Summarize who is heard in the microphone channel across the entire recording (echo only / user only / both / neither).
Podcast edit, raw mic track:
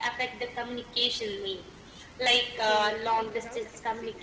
both